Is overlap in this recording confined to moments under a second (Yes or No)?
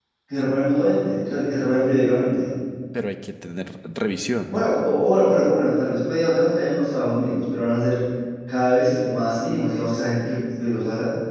Yes